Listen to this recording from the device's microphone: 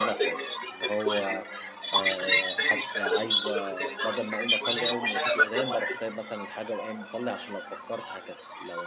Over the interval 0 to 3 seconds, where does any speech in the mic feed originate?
both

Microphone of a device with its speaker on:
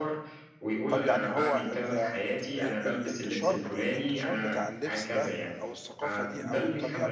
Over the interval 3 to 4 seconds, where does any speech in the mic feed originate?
both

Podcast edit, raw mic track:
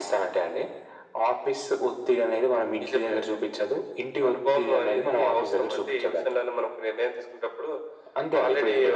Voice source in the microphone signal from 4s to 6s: echo only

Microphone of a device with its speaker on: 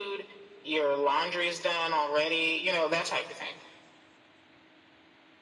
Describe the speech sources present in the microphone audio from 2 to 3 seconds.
echo only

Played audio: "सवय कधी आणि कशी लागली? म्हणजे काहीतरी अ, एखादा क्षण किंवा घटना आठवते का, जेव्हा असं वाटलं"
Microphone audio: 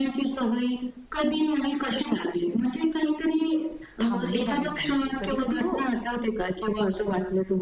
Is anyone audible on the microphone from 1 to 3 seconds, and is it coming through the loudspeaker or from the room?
echo only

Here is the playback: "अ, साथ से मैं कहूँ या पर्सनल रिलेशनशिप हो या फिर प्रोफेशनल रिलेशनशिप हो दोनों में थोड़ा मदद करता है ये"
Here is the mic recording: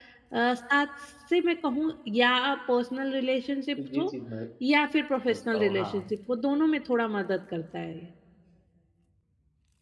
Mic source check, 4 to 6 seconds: both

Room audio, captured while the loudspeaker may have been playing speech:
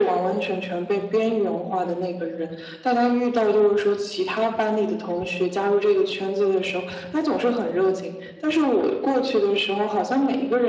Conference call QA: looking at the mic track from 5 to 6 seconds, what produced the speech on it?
echo only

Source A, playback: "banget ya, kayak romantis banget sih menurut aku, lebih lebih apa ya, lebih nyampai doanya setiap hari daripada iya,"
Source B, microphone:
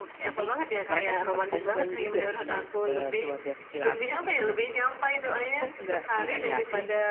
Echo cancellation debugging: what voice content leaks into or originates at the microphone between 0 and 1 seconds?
both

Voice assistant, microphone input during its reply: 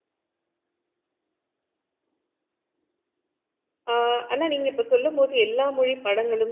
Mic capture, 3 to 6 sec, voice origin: user only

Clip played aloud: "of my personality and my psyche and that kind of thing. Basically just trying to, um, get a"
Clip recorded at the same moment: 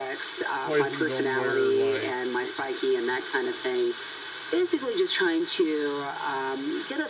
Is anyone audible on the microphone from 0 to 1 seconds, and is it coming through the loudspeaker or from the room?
both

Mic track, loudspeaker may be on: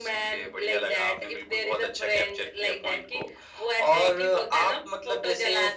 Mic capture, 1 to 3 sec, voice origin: echo only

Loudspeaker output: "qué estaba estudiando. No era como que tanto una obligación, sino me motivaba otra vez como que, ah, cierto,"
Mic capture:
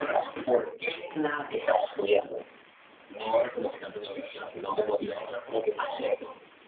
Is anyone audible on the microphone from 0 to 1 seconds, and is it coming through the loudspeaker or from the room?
echo only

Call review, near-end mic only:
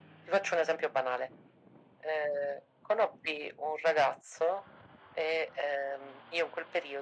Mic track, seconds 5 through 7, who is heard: echo only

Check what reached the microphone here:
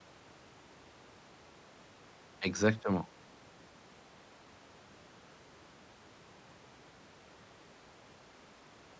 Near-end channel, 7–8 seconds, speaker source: neither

